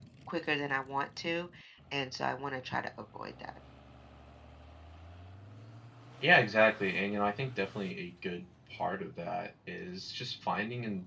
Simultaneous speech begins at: none

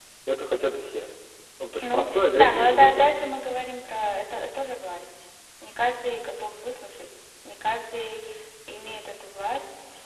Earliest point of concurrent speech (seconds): 1.8 s

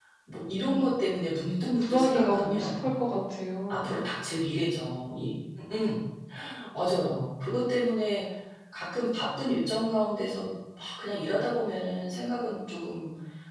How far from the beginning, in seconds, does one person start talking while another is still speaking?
1.6 s

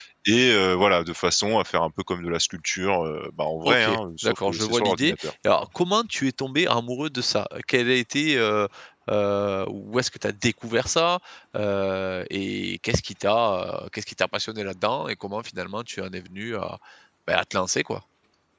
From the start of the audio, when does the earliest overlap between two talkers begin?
3.6 s

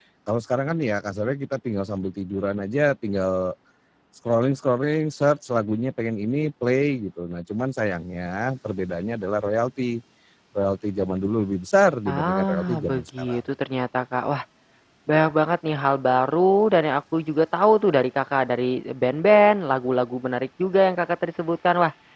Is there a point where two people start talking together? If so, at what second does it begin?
12.1 s

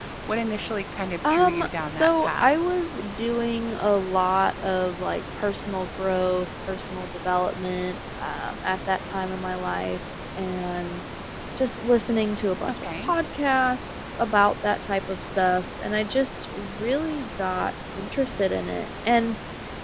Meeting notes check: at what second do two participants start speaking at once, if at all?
1.3 s

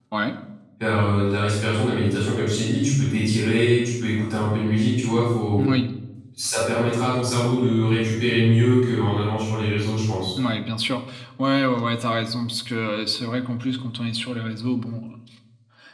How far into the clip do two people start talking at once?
none

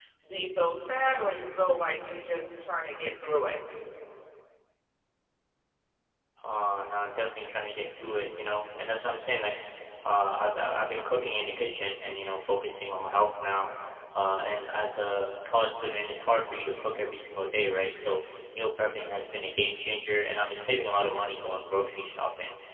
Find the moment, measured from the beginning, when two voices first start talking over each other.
none

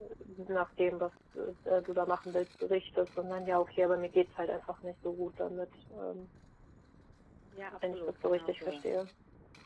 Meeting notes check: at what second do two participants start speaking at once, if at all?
7.8 s

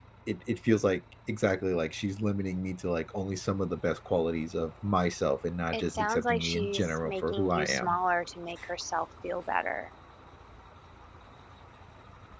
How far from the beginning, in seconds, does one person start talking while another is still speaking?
5.7 s

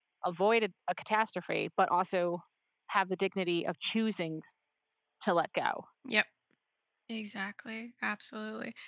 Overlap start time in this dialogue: none

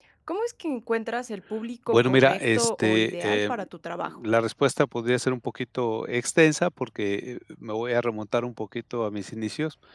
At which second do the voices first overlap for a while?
1.9 s

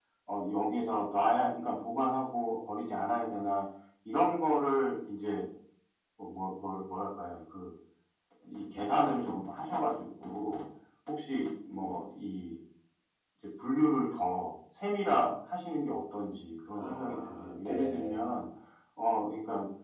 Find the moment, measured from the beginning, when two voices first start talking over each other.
16.8 s

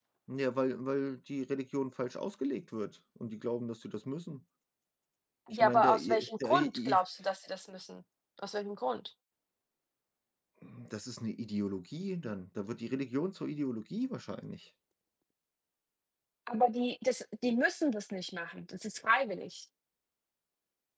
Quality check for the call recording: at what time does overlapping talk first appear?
5.5 s

